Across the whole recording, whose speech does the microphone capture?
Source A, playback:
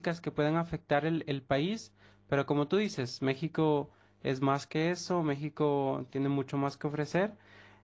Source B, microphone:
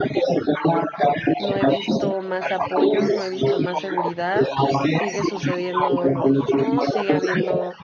both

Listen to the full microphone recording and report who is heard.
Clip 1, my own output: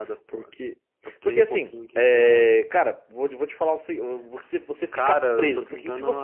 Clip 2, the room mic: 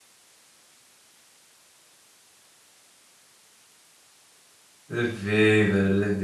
user only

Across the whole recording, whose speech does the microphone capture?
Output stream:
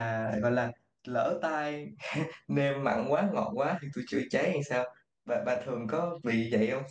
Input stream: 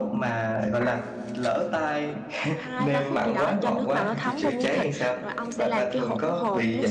both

